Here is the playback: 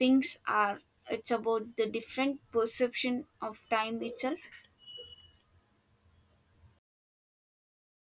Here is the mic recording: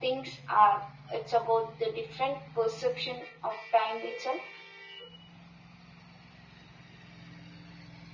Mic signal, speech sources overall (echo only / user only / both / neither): echo only